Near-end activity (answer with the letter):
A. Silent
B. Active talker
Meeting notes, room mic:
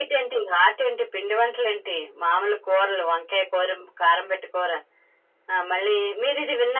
A